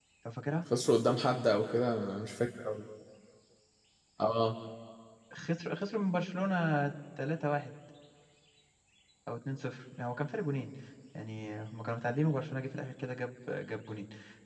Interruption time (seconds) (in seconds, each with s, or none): none